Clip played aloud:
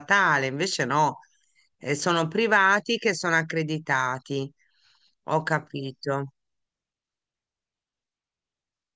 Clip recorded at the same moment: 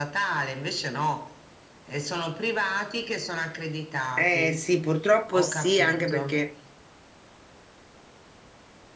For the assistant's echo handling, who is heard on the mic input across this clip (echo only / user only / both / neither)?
both